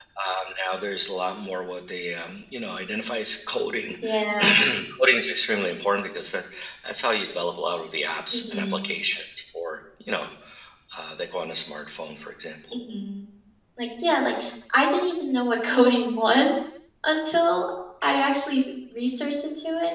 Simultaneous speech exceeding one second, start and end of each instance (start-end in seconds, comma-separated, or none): none